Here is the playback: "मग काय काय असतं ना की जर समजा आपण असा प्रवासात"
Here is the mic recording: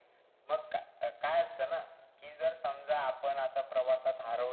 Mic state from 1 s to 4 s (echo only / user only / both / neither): echo only